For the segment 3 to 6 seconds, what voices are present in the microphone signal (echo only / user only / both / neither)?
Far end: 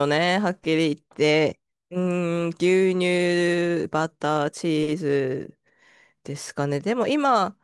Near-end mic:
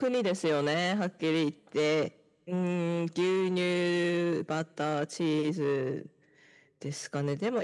echo only